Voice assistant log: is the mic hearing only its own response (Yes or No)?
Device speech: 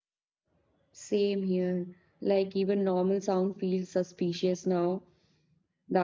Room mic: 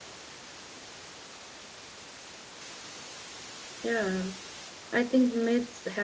No